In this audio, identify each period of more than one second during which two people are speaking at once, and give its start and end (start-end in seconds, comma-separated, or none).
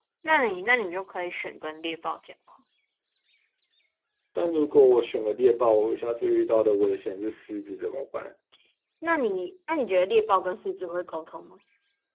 none